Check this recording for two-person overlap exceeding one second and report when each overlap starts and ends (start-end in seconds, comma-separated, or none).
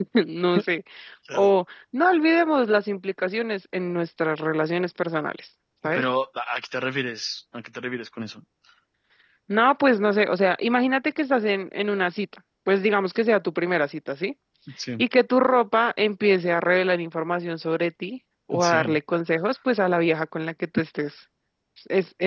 none